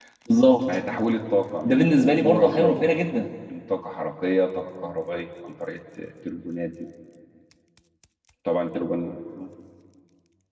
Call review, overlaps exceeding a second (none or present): present